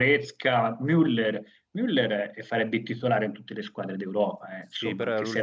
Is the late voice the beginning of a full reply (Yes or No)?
Yes